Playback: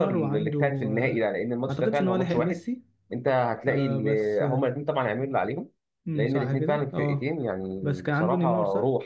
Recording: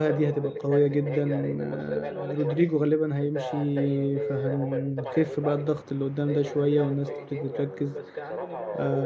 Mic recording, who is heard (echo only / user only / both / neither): both